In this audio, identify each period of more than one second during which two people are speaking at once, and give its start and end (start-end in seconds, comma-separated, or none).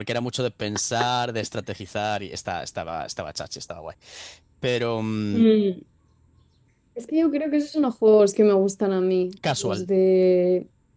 none